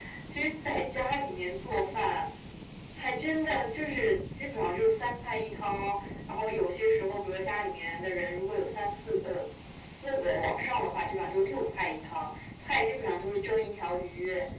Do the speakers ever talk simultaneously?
No

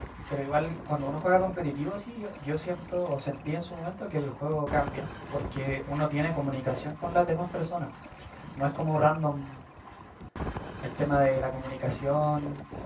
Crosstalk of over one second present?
No

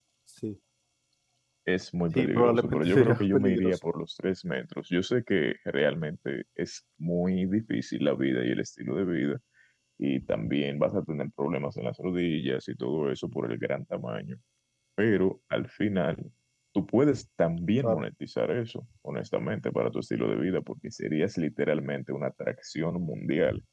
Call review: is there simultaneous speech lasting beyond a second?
Yes, from 2.1 s

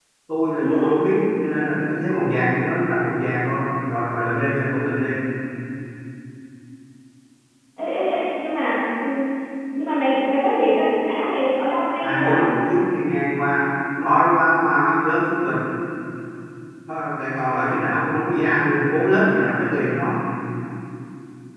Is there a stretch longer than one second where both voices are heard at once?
No

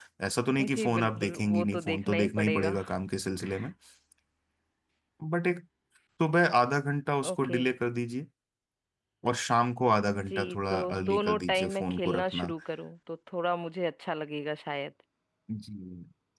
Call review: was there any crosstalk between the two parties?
Yes, from 0.6 s

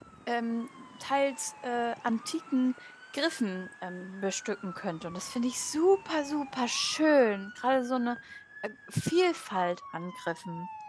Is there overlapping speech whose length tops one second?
No

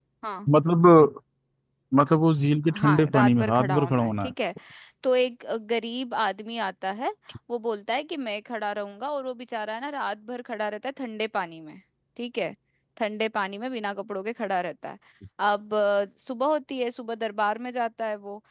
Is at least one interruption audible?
Yes, from 2.8 s

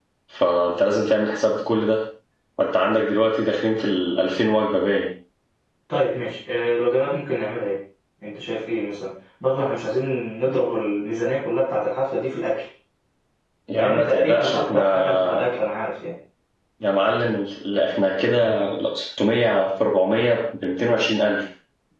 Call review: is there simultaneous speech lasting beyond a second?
Yes, from 13.7 s

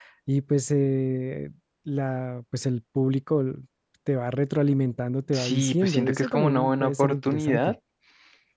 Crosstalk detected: Yes, from 5.3 s

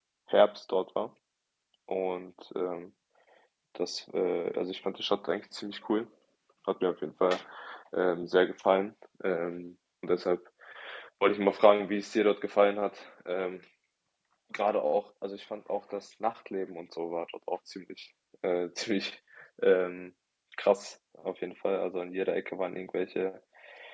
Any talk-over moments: No

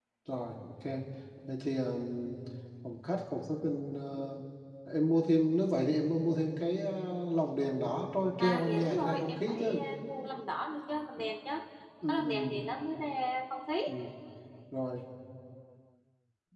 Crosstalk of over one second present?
Yes, from 8.4 s

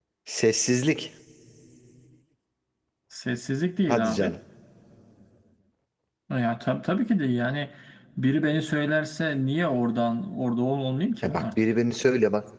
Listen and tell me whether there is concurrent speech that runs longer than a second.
No

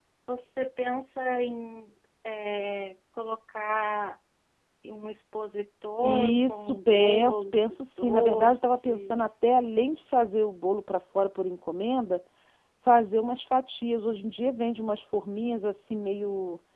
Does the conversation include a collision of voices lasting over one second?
Yes, from 6.0 s

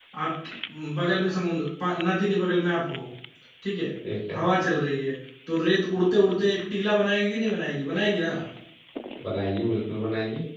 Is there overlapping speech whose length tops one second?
No

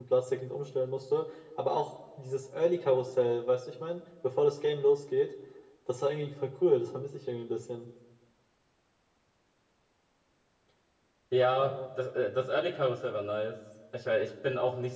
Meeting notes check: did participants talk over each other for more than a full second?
No

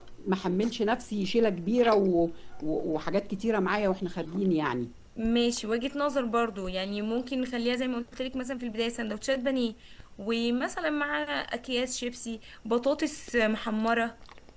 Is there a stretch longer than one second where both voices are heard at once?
No

